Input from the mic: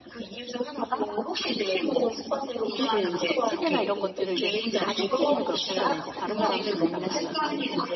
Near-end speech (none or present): present